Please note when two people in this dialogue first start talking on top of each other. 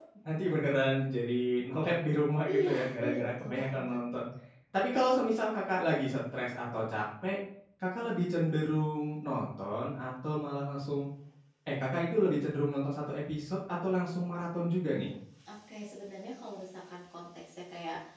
2.3 s

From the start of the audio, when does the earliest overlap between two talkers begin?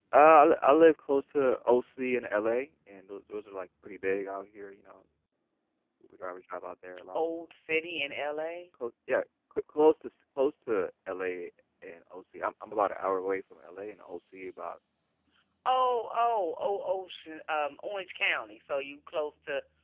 none

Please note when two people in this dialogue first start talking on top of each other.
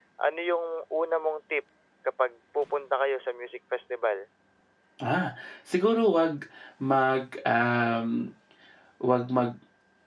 none

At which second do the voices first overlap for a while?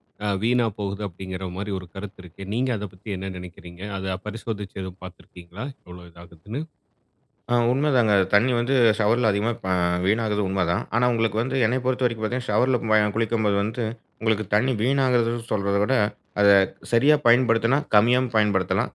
none

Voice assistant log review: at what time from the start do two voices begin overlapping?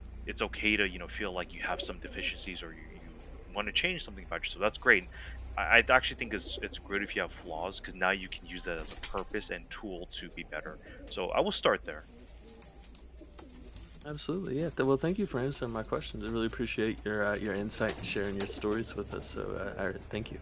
none

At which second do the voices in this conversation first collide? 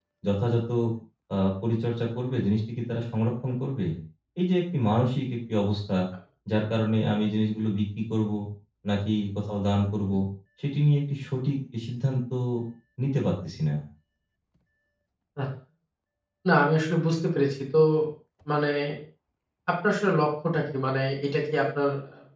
none

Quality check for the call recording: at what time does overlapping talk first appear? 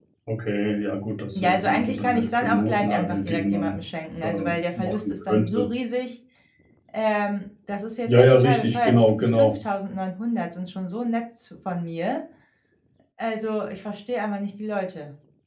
1.3 s

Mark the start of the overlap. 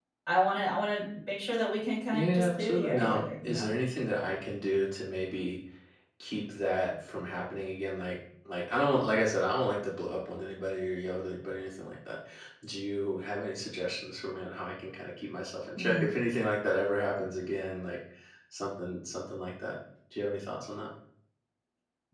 2.1 s

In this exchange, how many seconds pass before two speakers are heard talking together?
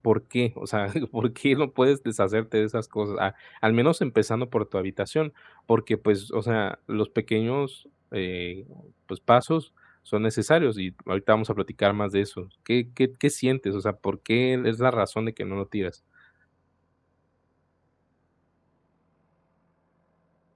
none

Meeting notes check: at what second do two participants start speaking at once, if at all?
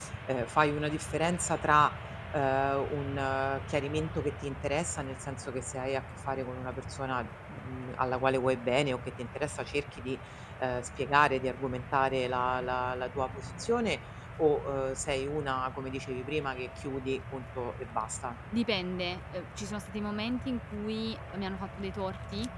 none

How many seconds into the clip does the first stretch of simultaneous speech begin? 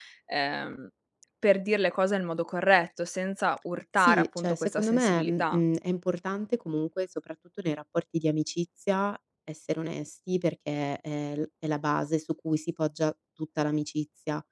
4.0 s

